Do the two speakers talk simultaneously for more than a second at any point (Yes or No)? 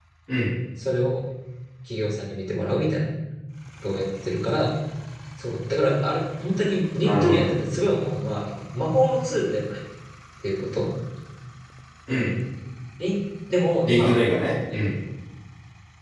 No